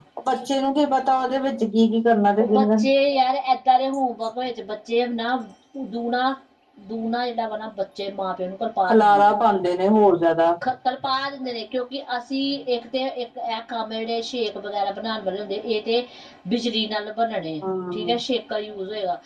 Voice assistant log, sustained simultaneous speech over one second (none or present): none